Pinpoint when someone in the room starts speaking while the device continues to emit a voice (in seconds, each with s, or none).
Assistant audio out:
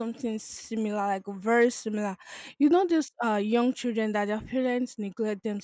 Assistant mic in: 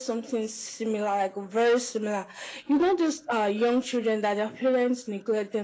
none